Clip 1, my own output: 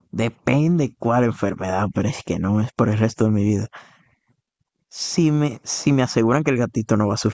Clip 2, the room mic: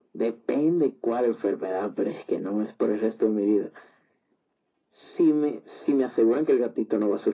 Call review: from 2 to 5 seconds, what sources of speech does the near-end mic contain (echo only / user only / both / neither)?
echo only